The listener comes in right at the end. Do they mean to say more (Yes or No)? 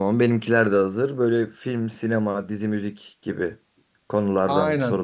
Yes